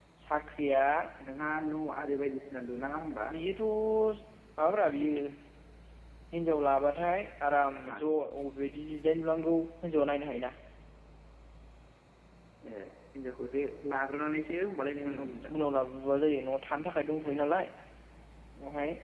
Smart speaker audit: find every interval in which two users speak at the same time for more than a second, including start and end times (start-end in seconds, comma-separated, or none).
none